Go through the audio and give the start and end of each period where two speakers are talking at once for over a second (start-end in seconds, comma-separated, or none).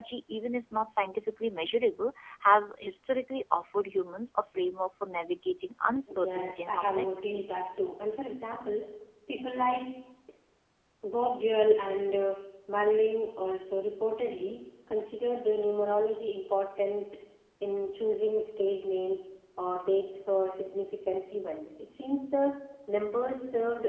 6.2-7.5